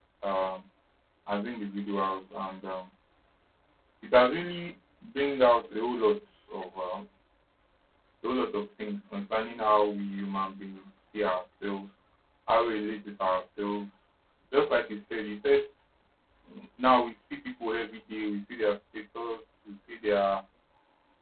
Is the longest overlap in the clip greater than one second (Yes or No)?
No